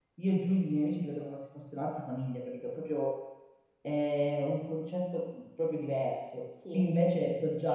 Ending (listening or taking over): listening